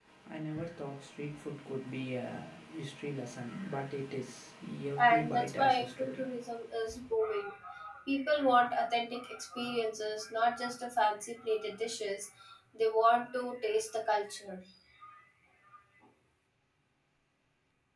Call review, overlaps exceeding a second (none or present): present